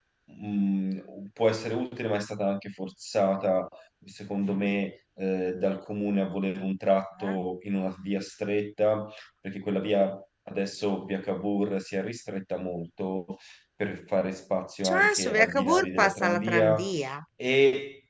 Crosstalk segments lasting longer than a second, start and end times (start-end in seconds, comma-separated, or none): 14.8-16.8